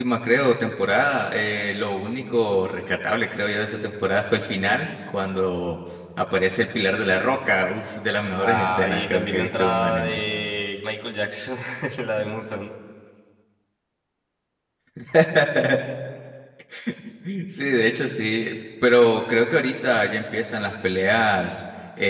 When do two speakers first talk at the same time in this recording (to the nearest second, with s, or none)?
8 s